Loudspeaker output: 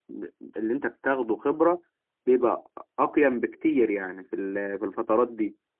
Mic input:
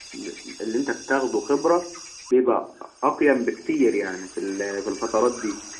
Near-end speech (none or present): none